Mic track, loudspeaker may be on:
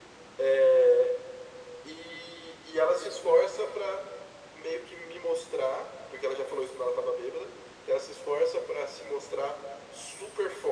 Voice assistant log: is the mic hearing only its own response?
Yes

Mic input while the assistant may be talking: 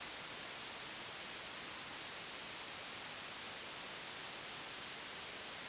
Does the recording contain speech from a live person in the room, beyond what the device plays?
No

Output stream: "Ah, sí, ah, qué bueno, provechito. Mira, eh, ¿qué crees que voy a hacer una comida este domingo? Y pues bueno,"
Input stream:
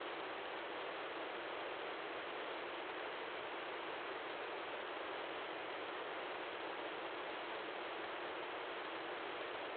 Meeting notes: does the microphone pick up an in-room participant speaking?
No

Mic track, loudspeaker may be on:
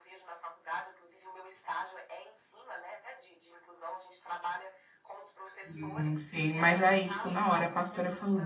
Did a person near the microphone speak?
Yes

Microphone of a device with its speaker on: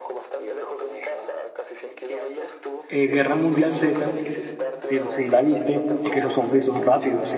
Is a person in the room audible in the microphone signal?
Yes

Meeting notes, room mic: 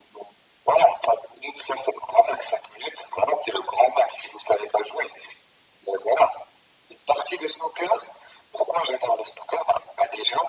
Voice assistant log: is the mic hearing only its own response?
Yes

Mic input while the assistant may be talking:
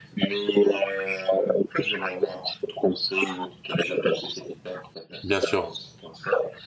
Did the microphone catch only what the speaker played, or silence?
No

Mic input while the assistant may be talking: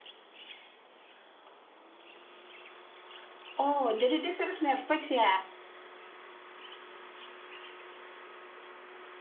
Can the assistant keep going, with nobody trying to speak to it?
No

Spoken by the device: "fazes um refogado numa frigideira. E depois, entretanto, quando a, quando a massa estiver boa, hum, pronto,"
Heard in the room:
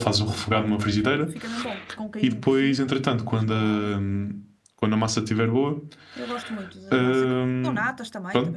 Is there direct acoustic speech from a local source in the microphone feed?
Yes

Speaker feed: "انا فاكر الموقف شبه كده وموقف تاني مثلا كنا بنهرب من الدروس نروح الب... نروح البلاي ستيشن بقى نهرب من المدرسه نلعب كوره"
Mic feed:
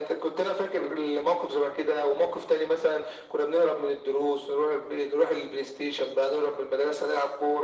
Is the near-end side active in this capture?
No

